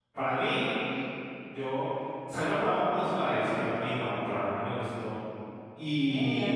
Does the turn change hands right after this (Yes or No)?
Yes